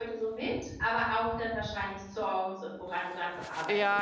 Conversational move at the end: taking over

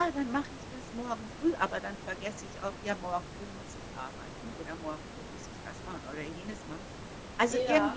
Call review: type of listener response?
listening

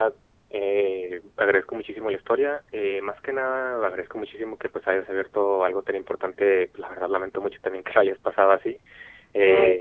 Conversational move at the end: listening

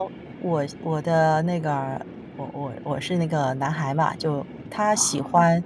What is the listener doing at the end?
listening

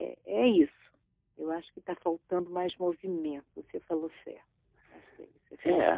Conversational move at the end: taking over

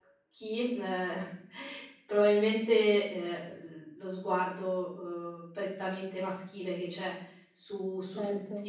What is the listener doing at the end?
listening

